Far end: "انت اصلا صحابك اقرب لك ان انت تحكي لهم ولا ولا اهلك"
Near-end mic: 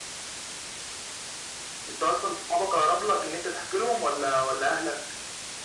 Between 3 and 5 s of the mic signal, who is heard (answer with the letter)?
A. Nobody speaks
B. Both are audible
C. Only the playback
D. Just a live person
C